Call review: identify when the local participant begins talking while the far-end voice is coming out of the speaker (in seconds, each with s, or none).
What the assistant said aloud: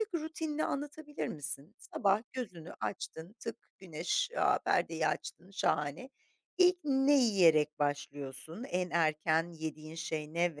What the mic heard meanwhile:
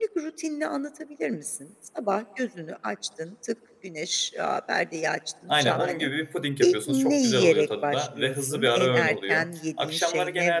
5.5 s